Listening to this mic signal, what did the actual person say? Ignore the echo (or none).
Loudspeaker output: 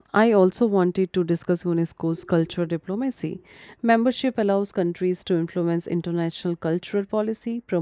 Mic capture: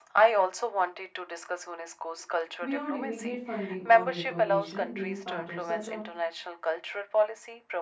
beyond immediate funding or recognition. Being part of such a